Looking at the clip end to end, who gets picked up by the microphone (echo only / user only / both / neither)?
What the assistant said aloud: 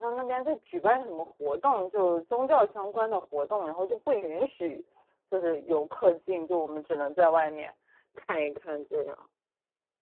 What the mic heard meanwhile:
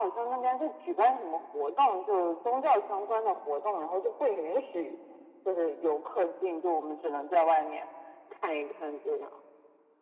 echo only